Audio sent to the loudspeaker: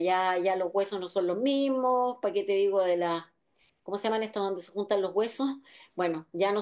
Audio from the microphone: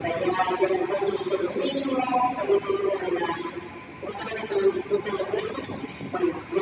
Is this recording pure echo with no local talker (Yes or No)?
Yes